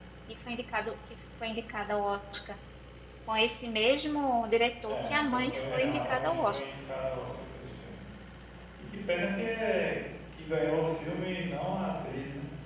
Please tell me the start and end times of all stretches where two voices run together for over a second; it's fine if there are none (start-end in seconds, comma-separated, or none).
4.9-6.6